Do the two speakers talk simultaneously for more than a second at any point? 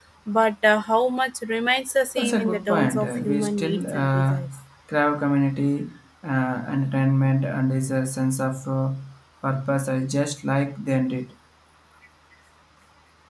Yes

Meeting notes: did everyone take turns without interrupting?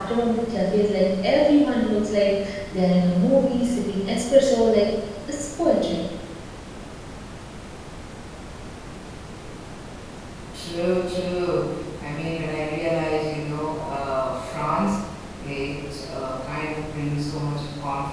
Yes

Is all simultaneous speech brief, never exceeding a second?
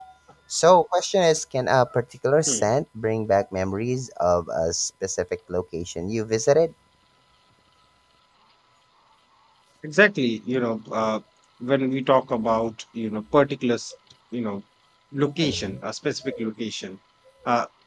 Yes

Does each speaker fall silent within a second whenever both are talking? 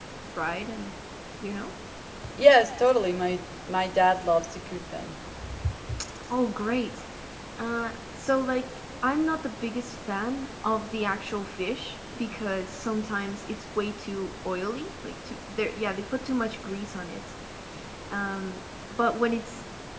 Yes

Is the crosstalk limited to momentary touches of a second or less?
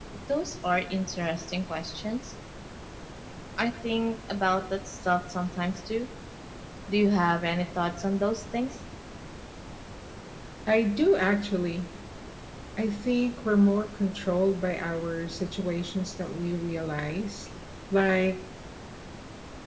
Yes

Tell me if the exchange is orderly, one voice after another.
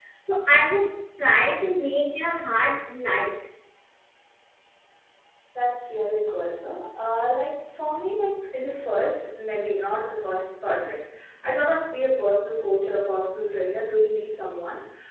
Yes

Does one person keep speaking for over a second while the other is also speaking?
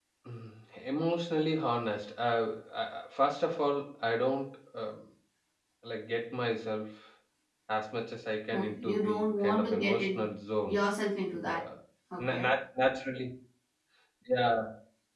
Yes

